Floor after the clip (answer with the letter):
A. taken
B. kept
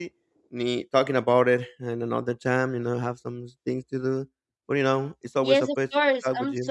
A